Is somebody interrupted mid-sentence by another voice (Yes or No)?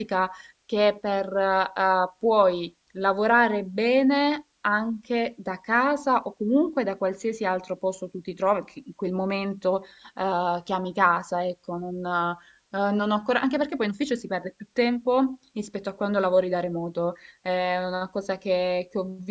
No